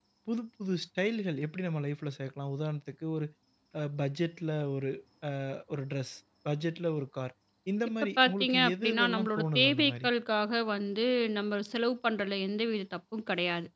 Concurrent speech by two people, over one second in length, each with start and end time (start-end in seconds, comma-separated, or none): 8.2-10.1